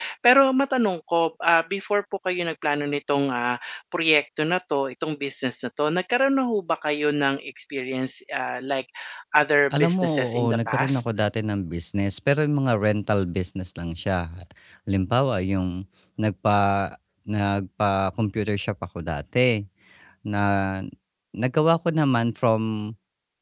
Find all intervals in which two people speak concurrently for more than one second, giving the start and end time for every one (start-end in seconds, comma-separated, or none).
9.8-11.0